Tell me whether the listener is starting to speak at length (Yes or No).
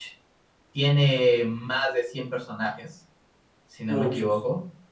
No